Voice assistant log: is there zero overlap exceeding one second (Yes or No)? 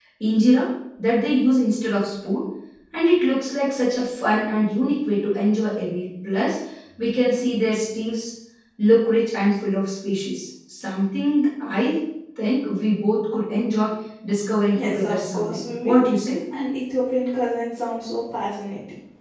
No